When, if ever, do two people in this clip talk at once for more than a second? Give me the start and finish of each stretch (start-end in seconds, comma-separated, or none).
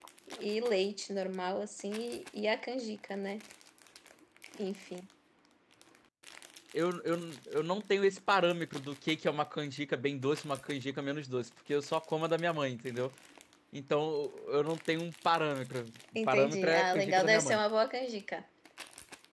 16.3-17.6